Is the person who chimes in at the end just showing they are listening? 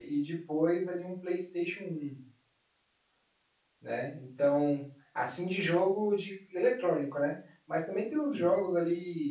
Yes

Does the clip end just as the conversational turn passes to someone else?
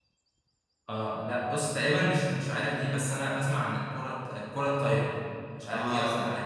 Yes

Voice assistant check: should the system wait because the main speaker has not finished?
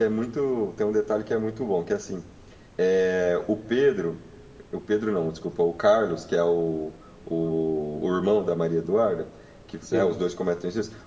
Yes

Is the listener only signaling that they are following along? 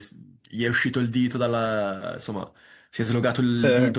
Yes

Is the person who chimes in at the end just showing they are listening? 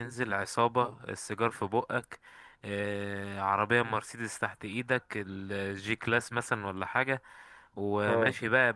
Yes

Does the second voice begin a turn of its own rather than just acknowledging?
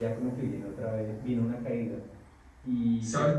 No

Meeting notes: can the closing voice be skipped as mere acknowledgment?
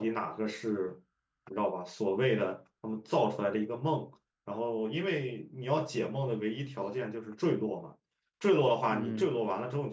Yes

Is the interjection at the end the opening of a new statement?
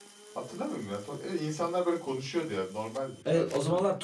Yes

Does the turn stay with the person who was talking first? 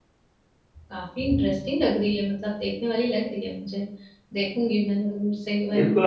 No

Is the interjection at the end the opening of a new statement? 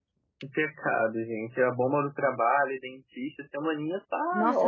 Yes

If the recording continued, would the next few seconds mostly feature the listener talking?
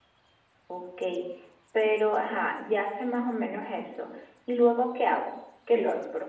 Yes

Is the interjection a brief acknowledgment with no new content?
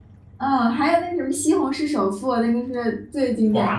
No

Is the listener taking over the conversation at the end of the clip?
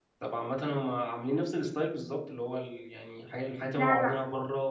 No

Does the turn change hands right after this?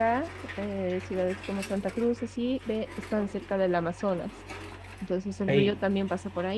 No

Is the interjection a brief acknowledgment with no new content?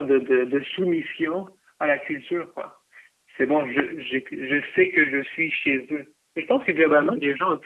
Yes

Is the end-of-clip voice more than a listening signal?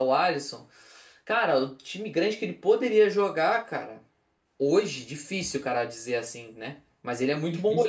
No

